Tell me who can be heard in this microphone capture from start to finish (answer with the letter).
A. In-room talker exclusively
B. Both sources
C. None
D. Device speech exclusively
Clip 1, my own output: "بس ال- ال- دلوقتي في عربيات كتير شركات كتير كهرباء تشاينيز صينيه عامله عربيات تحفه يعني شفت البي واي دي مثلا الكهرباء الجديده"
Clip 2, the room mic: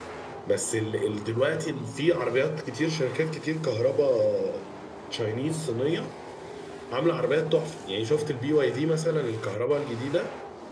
D